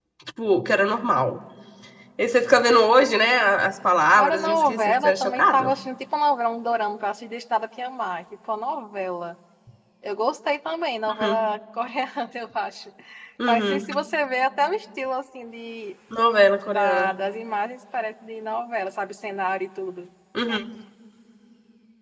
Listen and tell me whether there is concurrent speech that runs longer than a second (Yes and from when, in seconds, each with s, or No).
Yes, from 4.2 s